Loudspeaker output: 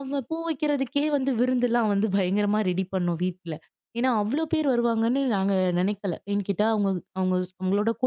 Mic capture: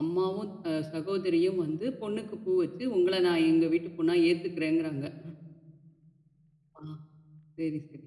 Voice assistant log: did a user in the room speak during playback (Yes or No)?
Yes